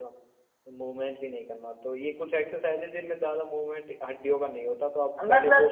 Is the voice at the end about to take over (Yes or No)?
Yes